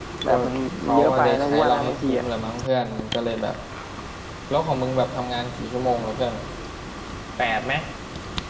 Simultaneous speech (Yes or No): Yes